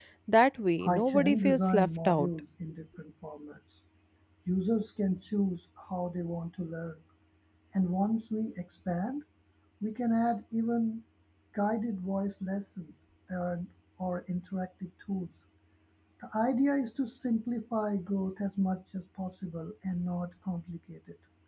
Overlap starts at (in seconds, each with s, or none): 0.8 s